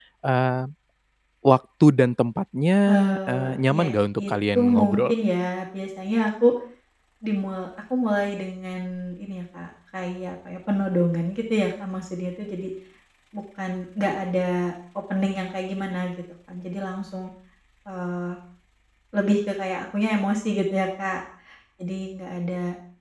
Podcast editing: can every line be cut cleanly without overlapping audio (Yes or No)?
No